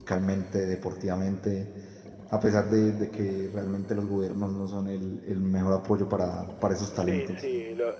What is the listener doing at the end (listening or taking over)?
taking over